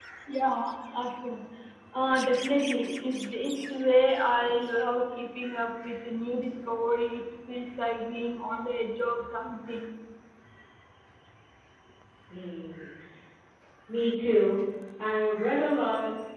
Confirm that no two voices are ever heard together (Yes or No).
Yes